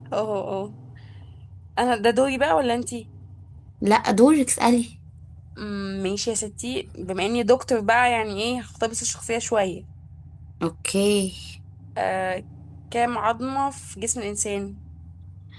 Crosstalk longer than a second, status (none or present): none